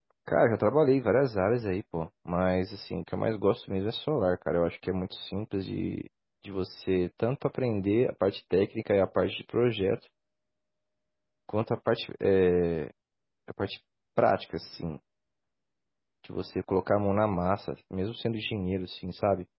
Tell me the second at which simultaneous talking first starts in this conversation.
none

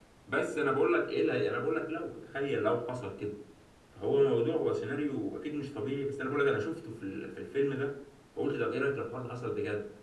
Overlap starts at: none

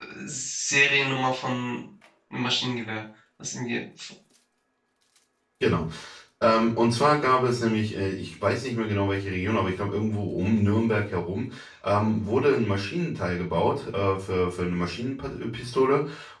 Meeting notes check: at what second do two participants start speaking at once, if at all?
none

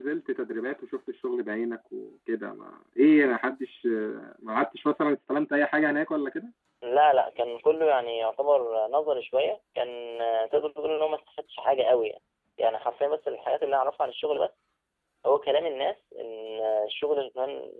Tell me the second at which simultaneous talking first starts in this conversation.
none

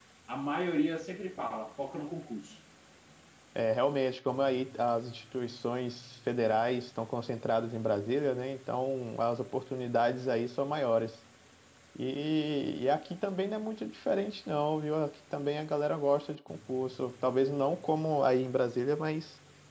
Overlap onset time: none

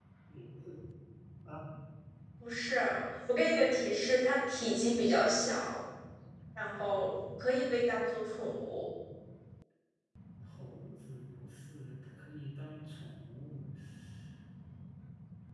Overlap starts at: none

